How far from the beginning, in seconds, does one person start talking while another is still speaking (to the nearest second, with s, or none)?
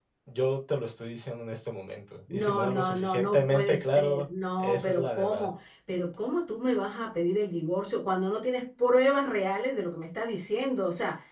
2 s